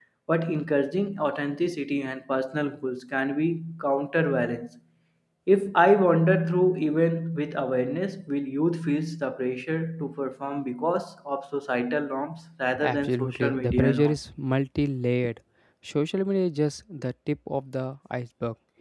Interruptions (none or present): present